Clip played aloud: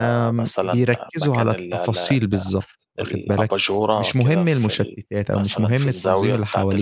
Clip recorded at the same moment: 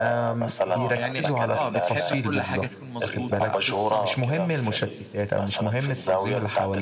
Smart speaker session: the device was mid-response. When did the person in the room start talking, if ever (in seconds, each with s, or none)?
0.7 s